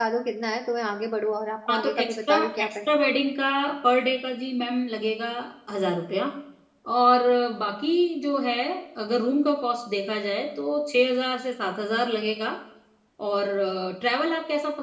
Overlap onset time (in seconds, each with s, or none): 1.7 s